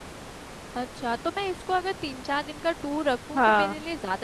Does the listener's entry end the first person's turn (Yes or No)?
No